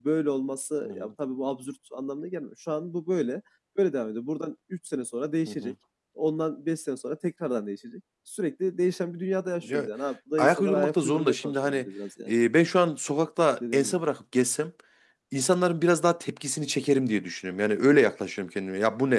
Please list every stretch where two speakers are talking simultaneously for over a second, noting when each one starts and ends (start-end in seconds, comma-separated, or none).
10.4-11.9